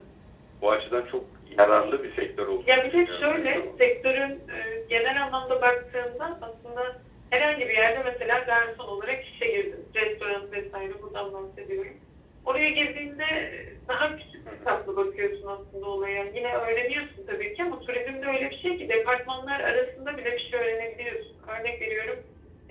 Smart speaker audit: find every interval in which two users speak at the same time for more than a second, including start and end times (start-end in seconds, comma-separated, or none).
2.6-3.9